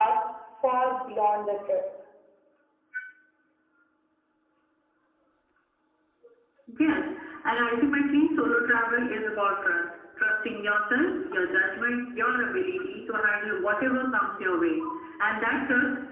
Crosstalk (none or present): none